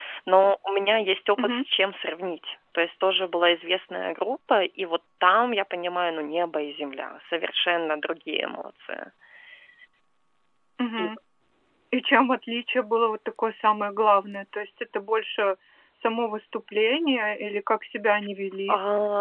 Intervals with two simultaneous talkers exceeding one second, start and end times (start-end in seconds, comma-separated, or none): none